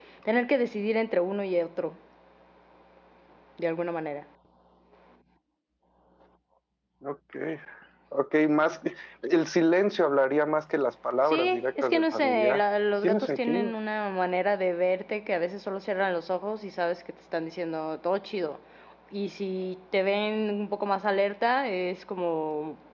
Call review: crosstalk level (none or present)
present